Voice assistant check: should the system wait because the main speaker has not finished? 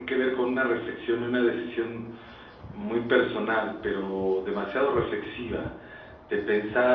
Yes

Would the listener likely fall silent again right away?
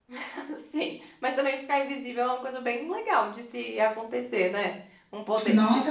No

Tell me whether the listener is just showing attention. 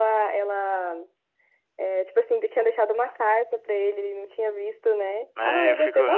No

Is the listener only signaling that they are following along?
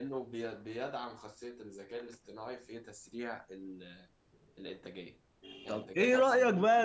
No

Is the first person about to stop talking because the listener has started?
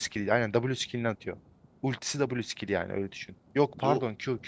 No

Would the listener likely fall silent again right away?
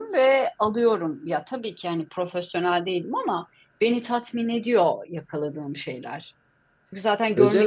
No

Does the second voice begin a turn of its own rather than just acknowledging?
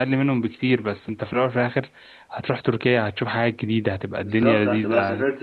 Yes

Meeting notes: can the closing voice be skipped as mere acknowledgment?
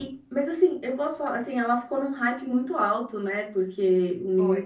Yes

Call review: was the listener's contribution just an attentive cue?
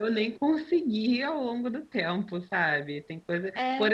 Yes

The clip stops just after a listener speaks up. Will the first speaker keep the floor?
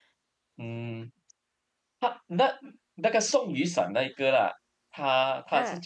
Yes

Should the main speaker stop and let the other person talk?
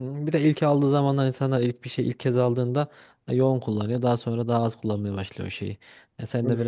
No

